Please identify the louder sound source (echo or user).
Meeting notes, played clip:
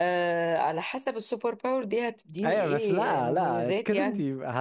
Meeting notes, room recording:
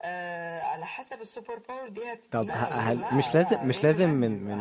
user